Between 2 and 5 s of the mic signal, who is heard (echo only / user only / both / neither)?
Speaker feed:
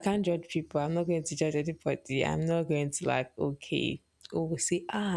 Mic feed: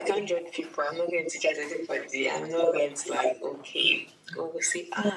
echo only